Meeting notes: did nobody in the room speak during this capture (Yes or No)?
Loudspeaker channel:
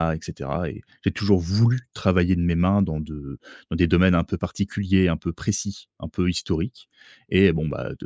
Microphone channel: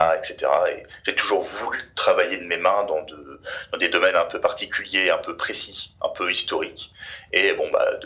Yes